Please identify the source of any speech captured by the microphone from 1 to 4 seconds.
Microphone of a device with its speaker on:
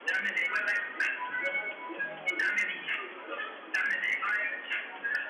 echo only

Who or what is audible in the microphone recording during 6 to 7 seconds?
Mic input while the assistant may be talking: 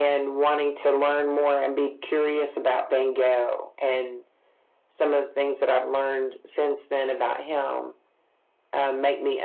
echo only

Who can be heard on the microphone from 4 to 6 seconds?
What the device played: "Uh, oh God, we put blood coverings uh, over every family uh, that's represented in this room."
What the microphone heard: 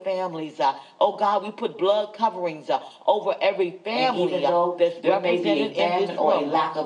both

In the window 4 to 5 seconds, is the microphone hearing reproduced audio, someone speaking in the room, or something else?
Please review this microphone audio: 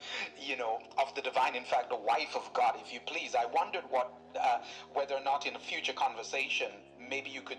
echo only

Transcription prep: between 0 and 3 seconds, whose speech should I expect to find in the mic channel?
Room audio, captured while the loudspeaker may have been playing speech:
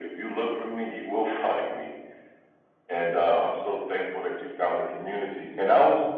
echo only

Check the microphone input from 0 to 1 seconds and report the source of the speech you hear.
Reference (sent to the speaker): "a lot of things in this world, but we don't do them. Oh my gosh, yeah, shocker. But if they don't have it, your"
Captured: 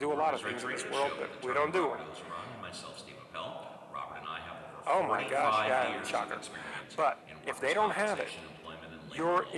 both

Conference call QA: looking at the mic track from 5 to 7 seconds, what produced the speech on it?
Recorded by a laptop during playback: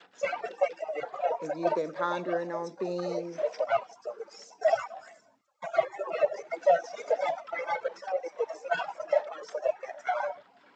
echo only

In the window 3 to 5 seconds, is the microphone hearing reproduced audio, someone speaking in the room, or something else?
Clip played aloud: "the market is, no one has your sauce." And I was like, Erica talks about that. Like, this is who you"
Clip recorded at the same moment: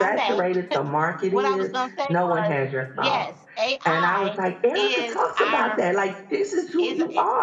both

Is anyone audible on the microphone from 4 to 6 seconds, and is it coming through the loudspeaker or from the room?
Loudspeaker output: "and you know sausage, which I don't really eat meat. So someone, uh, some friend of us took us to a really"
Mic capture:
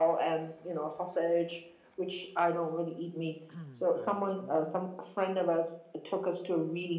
both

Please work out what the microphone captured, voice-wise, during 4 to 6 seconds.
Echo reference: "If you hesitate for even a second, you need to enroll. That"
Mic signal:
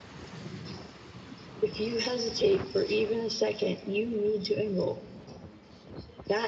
echo only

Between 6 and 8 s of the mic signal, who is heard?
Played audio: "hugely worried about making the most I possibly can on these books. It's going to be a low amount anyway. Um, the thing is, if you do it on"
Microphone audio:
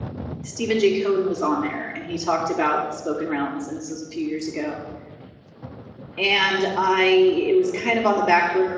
user only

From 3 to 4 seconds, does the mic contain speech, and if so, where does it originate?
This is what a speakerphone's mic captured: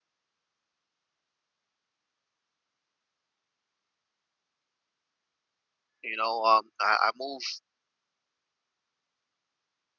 neither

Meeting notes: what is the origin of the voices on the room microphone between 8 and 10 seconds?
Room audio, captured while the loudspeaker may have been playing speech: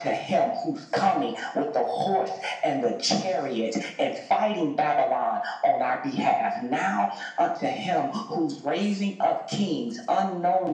echo only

